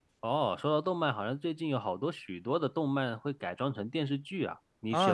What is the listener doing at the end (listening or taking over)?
taking over